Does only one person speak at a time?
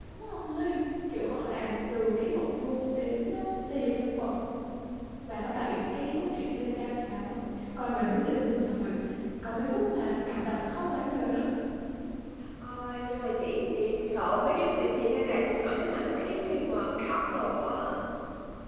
Yes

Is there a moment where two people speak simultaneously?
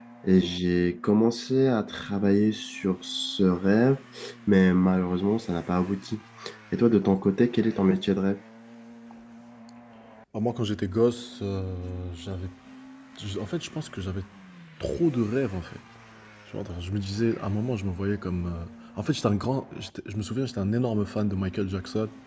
No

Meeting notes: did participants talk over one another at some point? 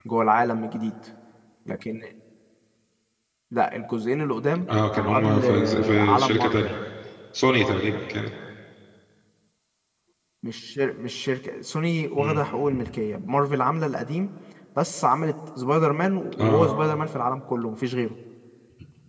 Yes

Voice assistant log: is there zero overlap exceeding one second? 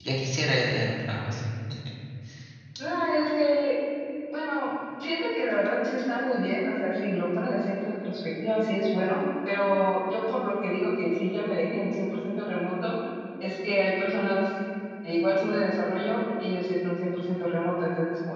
Yes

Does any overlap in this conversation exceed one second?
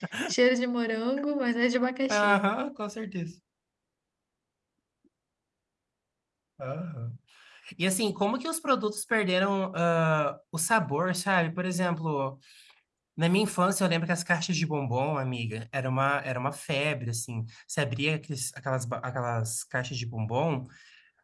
No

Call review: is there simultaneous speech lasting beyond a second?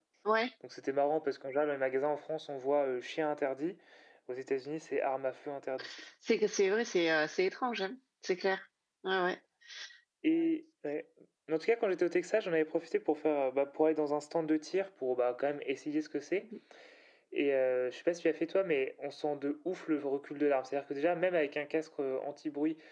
No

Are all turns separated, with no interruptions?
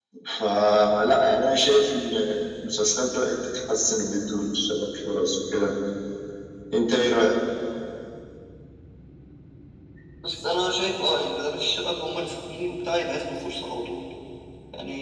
Yes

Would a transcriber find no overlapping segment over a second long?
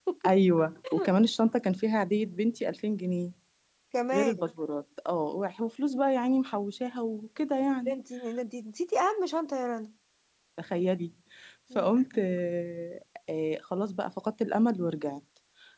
Yes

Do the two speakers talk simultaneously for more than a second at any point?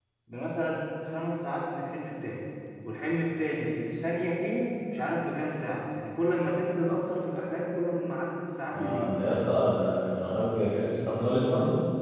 No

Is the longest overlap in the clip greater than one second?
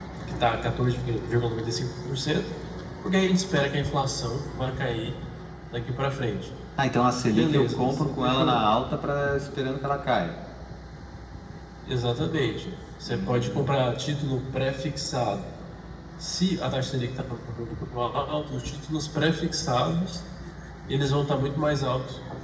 Yes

